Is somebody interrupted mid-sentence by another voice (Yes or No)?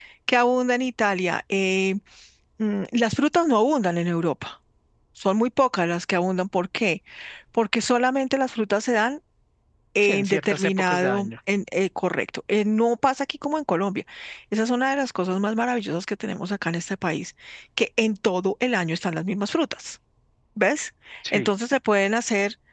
Yes